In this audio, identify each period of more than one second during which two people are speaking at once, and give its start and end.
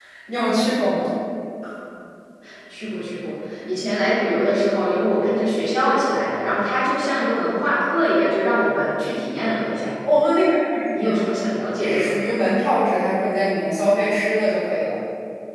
none

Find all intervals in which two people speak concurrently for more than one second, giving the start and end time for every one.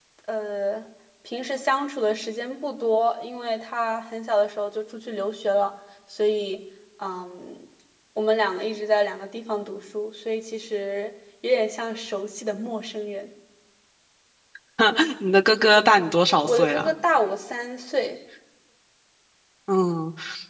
none

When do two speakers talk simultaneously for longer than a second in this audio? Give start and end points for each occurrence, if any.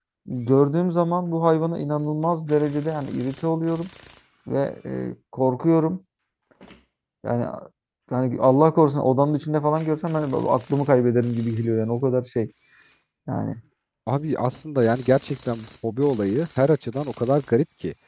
none

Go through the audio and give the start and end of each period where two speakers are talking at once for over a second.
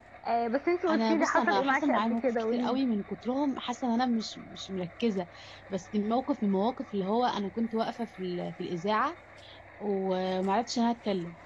0.9-2.8

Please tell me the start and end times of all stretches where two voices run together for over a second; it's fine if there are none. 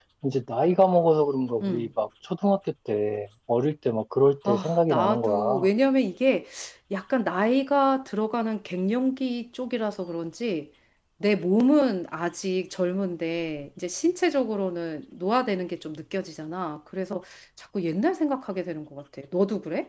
4.5-5.7

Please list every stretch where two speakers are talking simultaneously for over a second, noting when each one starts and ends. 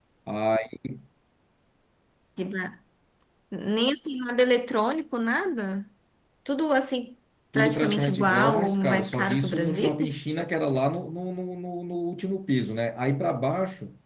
7.5-10.2

